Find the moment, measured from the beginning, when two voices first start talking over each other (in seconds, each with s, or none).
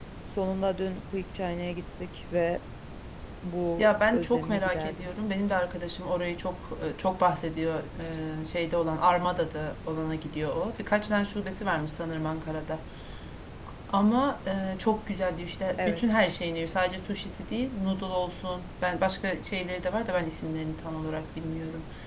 3.8 s